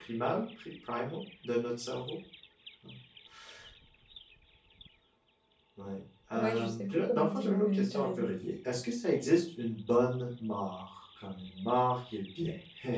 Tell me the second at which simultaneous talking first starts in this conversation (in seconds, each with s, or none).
6.3 s